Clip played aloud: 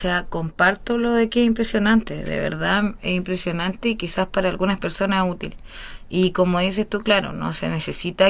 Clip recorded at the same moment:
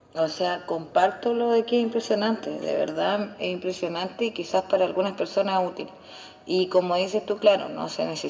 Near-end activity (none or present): none